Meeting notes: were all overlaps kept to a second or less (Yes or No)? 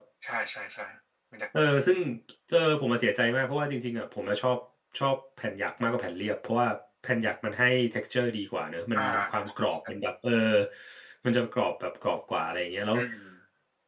Yes